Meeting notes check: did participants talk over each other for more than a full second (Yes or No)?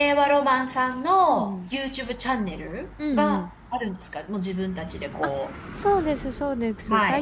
No